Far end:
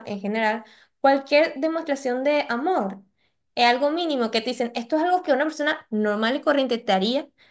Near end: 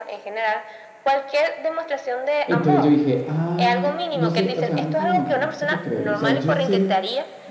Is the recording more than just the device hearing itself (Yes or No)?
Yes